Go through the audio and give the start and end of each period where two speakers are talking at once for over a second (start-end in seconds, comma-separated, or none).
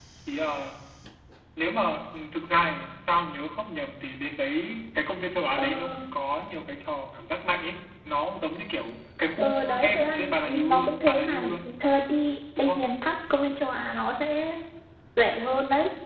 9.4-11.4